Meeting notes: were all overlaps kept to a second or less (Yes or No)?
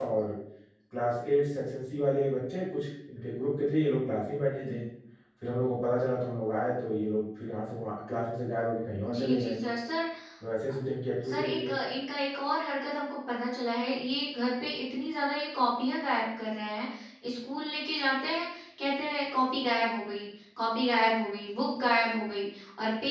Yes